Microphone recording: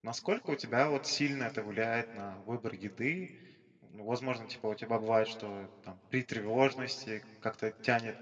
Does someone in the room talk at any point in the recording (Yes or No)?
Yes